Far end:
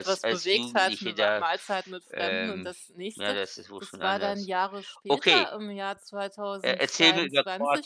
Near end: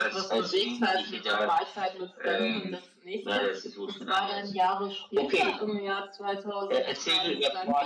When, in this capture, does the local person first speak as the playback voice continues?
none

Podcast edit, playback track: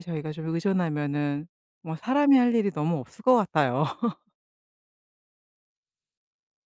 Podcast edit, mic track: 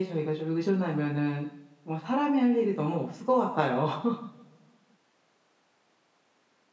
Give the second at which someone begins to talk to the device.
none

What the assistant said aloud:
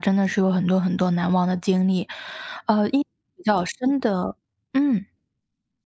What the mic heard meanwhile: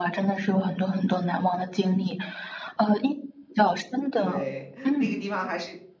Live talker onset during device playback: 4.1 s

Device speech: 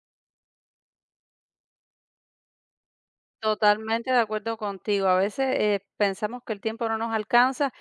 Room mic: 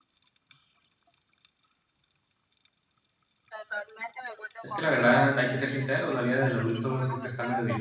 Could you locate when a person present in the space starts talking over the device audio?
4.6 s

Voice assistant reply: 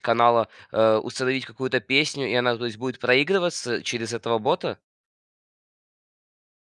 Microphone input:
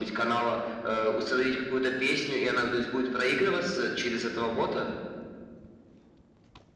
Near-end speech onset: none

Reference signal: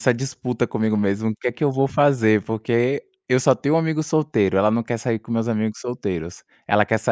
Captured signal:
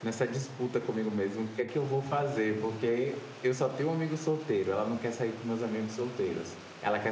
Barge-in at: none

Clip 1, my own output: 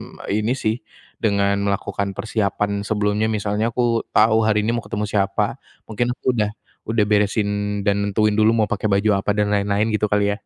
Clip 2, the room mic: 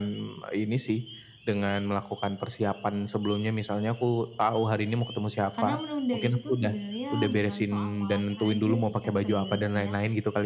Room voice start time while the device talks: 5.5 s

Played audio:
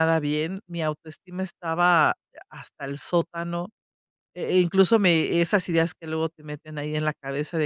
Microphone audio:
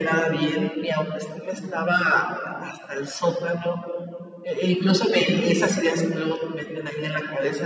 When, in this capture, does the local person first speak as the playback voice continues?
none

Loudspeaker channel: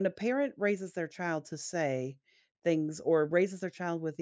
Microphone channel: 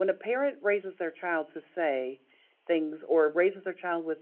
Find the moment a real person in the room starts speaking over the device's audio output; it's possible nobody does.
none

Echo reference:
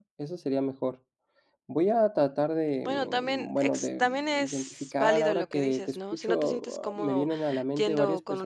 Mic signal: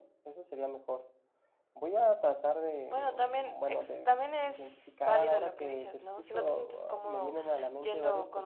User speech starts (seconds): none

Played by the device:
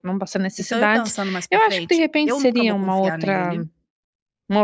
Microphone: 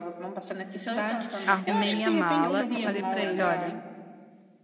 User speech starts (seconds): 1.4 s

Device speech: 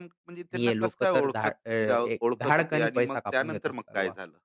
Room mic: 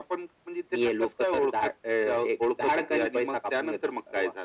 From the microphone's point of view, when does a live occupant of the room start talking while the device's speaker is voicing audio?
none

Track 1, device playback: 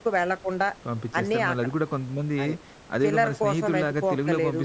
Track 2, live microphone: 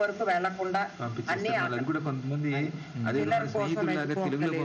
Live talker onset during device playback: 3.0 s

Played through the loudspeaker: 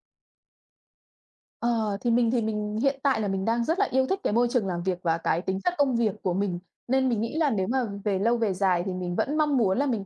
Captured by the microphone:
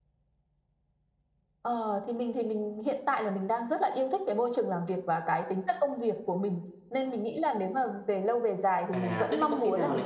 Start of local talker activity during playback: 8.9 s

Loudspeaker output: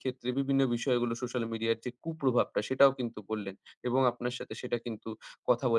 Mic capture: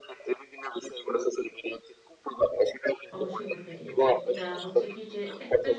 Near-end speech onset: 3.1 s

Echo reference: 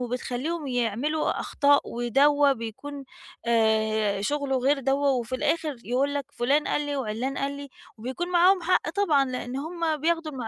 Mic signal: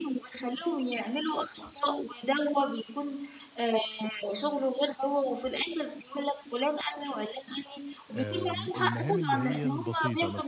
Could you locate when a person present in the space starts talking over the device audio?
8.1 s

